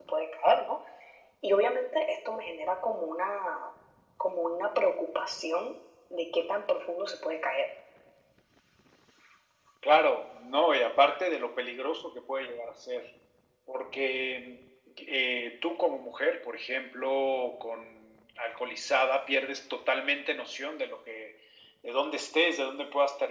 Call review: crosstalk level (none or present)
none